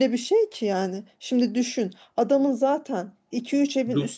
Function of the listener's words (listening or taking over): listening